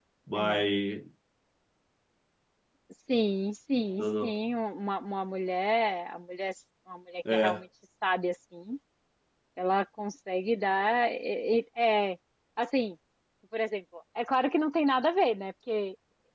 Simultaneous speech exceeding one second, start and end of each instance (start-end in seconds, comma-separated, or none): none